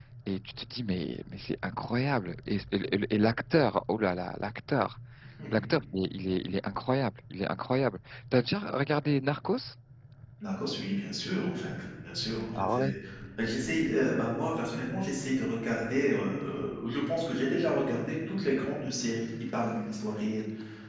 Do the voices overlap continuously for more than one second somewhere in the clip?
No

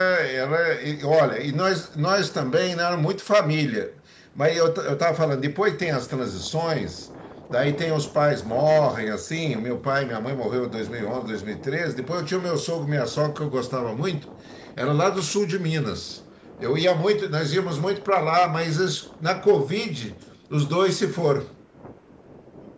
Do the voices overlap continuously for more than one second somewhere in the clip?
No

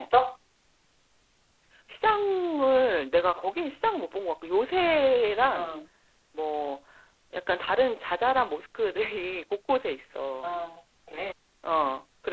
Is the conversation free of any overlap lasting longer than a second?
Yes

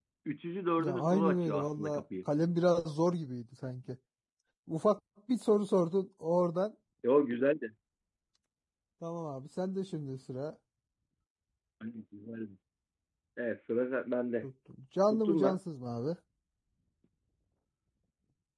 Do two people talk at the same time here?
Yes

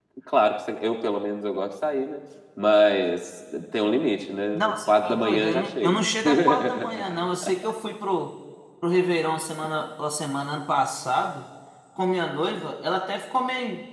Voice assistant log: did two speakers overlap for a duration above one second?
Yes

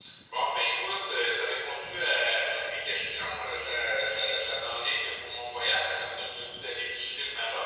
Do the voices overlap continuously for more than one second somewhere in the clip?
No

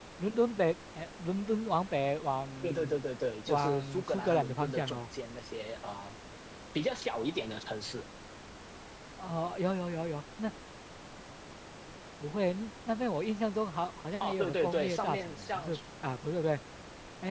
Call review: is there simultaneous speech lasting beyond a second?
Yes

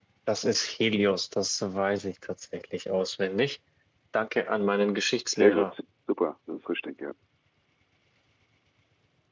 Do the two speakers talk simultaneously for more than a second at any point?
No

